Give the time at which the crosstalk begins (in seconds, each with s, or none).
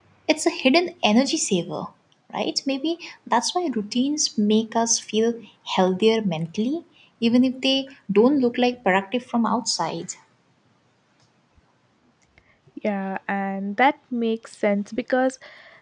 none